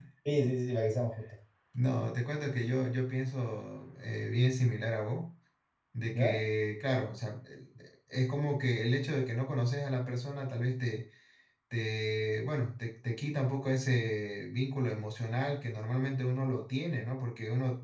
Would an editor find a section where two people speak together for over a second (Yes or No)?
No